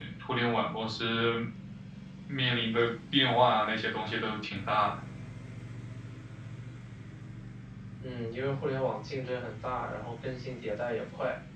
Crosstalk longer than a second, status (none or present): none